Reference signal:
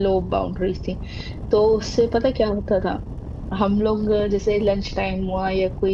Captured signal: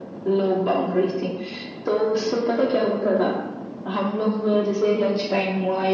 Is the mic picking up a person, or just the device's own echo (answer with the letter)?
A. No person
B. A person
A